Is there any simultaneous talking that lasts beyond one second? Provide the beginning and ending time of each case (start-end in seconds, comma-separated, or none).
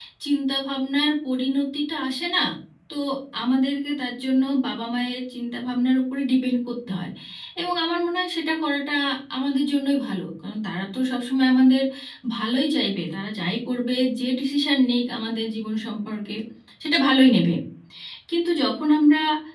none